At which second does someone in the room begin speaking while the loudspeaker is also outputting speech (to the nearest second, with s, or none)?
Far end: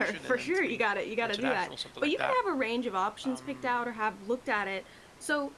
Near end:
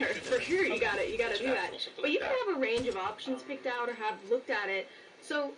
1 s